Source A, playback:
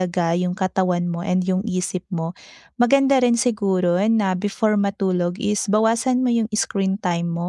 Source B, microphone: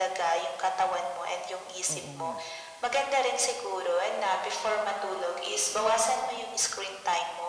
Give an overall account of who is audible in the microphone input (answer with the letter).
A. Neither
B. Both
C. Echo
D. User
B